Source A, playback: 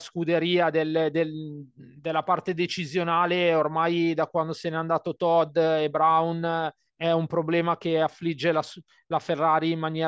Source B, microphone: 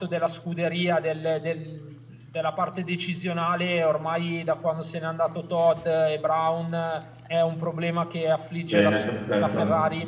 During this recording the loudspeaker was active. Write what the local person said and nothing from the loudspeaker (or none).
bene, perfetto.